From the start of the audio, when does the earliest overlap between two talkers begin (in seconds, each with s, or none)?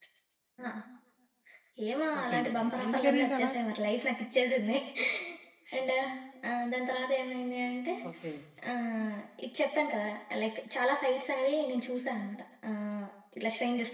2.2 s